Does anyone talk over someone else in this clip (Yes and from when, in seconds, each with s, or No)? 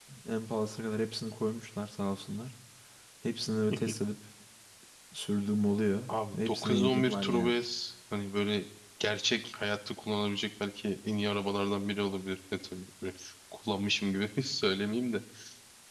Yes, from 6.1 s